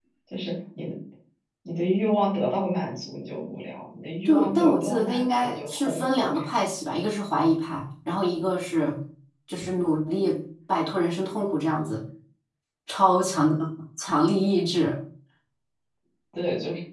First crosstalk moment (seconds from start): 4.2 s

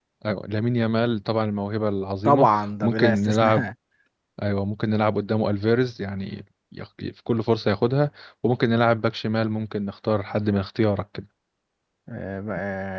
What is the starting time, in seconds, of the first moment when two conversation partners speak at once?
2.2 s

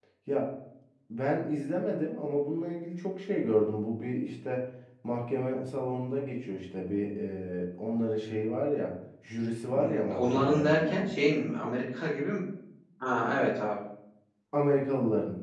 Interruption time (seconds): 9.7 s

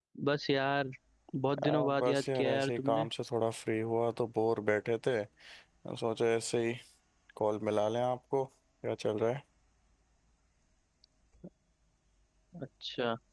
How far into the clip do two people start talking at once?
1.6 s

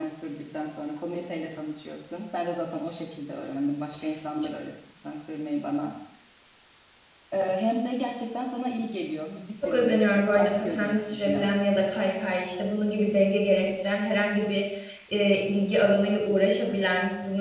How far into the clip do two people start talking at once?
9.6 s

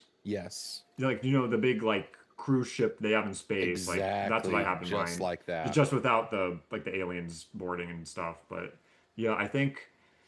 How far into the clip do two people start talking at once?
3.6 s

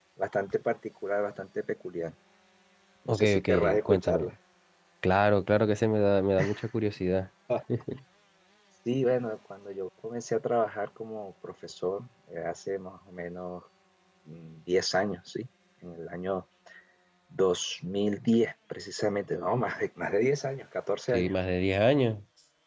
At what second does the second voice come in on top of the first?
3.1 s

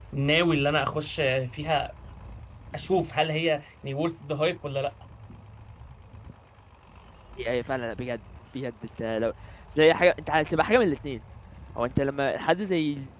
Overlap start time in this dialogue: none

